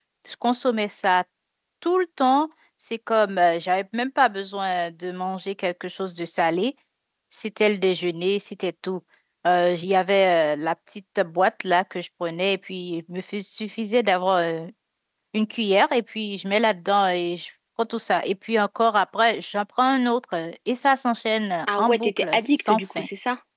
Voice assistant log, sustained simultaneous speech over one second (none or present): present